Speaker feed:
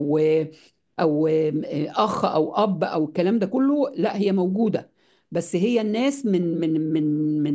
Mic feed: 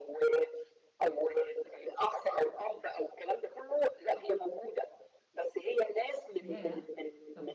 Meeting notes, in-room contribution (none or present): present